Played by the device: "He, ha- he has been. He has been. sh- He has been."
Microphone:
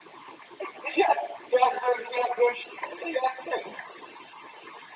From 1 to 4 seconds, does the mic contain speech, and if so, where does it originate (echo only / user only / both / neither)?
echo only